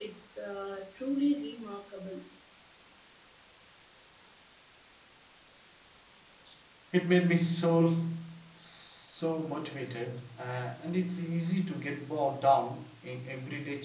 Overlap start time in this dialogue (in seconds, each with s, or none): none